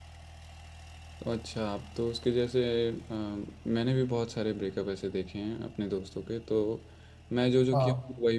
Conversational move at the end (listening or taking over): listening